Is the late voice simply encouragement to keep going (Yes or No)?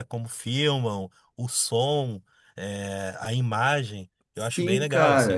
No